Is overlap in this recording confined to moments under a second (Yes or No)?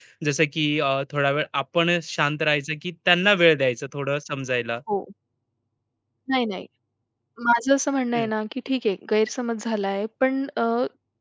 Yes